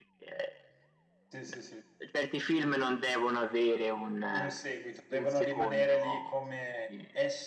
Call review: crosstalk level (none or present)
present